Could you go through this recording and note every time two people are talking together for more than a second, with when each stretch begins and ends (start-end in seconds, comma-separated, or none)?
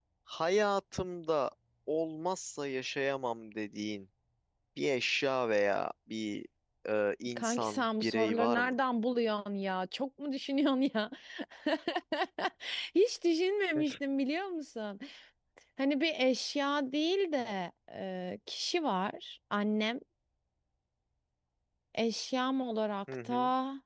7.3-8.7